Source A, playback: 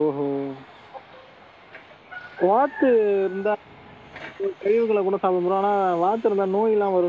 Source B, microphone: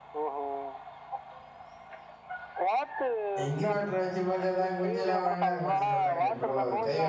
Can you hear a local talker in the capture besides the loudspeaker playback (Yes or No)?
Yes